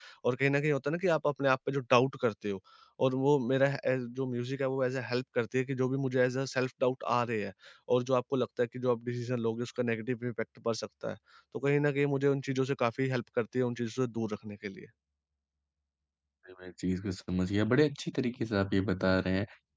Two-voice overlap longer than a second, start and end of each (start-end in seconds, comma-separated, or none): none